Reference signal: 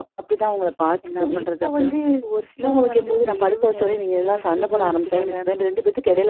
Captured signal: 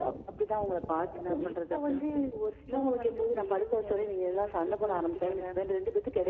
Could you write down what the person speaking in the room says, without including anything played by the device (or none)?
none